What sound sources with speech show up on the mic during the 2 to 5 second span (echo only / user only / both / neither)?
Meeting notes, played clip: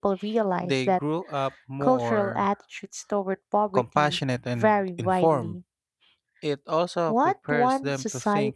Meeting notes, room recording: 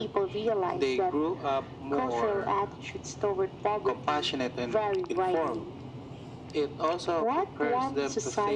echo only